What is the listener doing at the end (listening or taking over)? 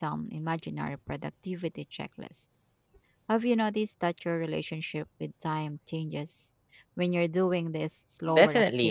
taking over